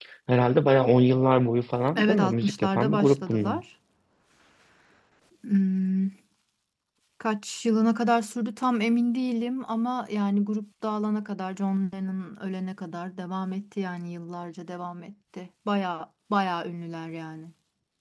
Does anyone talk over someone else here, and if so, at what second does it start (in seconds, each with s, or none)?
2.0 s